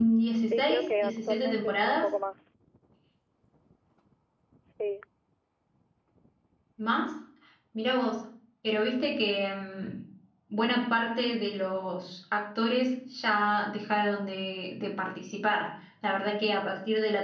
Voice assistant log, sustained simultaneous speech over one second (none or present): present